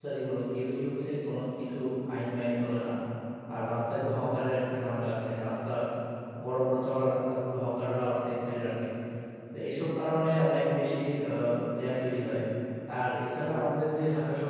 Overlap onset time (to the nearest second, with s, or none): none